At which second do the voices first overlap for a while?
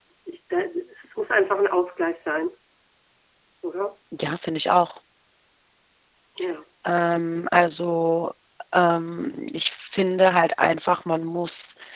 none

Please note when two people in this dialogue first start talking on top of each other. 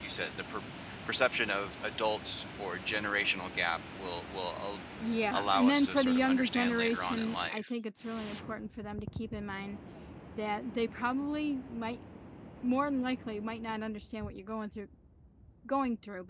5.3 s

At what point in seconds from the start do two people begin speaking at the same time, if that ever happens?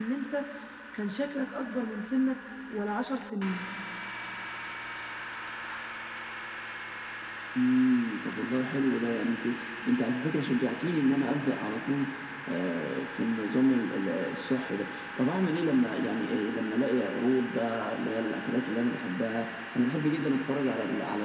none

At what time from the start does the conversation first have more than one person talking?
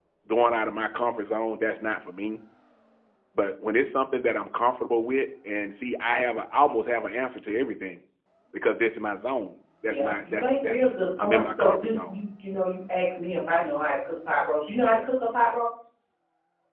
9.9 s

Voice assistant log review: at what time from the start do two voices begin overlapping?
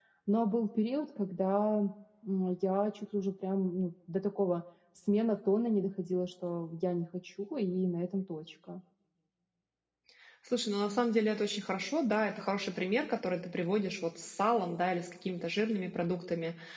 none

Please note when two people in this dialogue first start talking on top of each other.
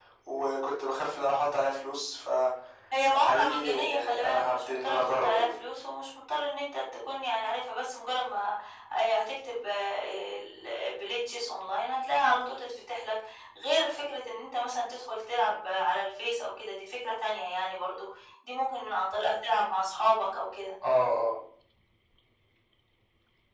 2.9 s

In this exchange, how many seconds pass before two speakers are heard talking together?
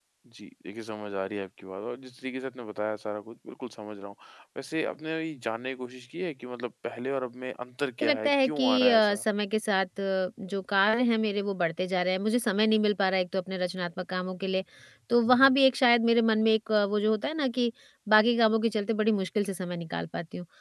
8.0 s

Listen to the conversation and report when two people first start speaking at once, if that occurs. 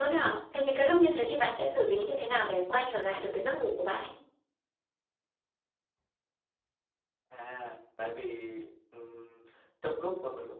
none

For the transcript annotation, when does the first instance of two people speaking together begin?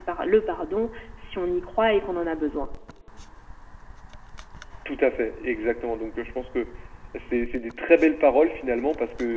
none

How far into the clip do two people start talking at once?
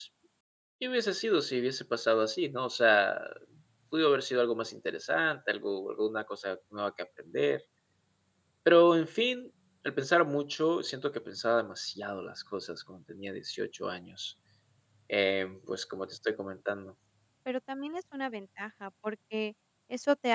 none

